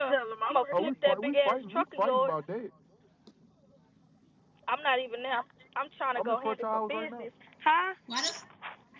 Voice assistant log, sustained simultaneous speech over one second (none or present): present